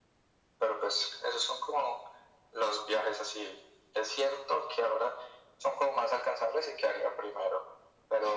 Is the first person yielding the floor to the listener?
No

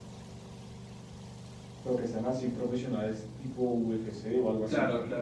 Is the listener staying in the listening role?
No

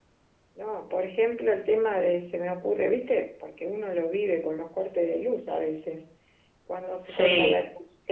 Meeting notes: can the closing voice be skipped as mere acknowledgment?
Yes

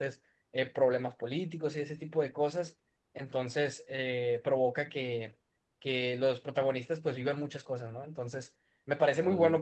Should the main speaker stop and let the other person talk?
No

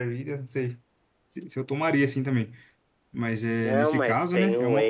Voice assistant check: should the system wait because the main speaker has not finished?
No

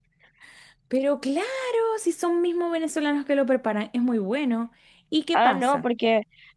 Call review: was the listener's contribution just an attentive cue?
No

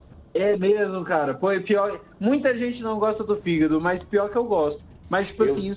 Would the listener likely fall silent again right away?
Yes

